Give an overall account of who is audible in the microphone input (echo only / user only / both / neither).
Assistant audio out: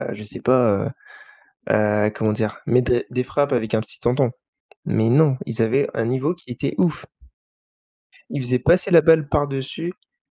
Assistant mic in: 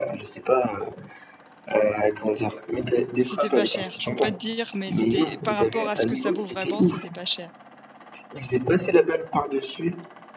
both